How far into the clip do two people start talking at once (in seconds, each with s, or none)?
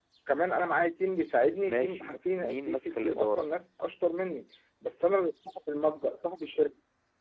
1.6 s